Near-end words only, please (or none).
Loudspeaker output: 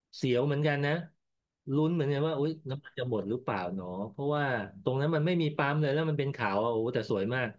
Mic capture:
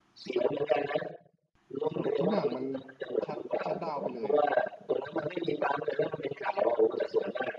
แบบทุกอย่างมันชัดชัดดาวน์ไปเลยอ่ะ